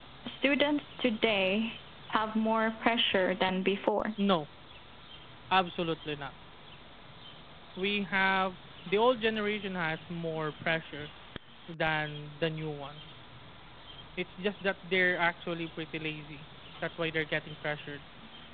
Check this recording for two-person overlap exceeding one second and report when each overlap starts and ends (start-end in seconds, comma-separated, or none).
none